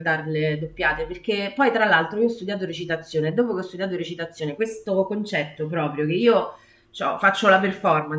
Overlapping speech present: No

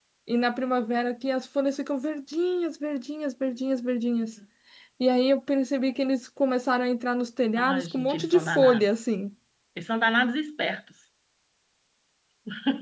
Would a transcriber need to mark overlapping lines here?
Yes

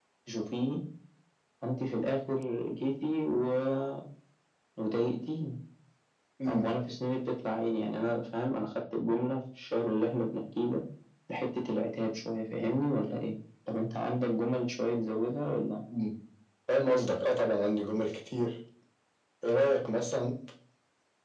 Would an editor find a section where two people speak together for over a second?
No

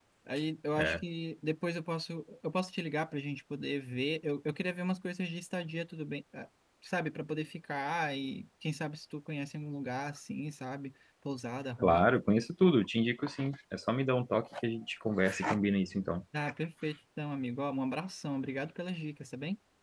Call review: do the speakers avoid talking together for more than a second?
Yes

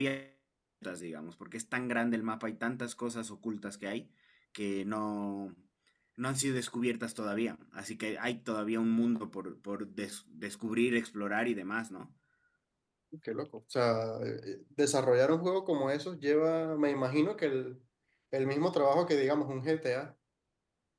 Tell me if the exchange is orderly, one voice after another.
Yes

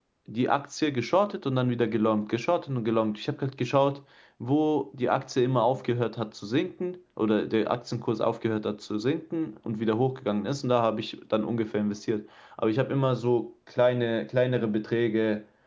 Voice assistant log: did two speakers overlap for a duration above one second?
No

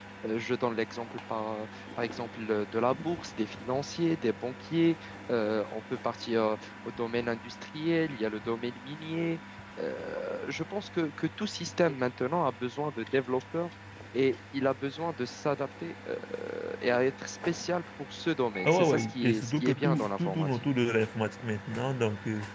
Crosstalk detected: Yes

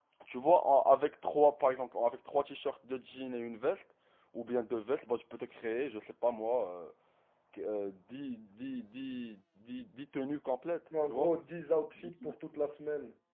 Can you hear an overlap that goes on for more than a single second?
No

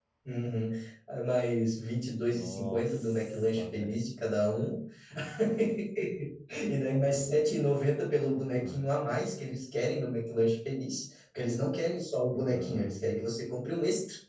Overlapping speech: Yes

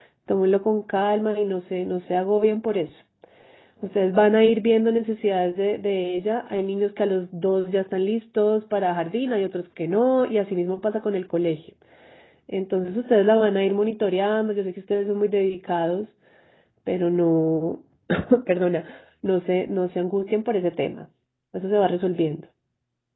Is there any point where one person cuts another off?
No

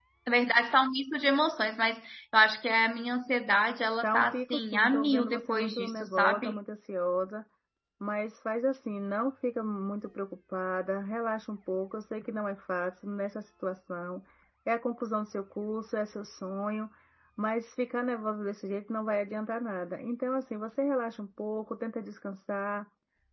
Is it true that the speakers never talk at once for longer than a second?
No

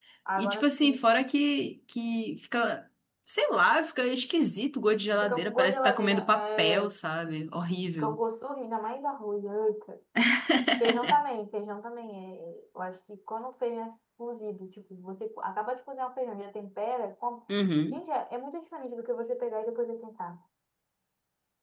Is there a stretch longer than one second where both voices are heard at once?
Yes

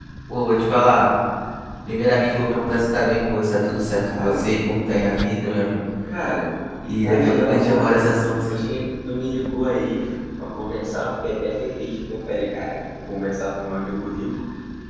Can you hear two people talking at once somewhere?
Yes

